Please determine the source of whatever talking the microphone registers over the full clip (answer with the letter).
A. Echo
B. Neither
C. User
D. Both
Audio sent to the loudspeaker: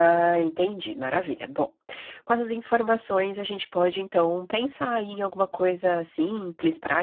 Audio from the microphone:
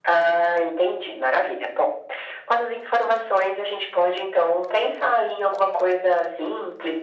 A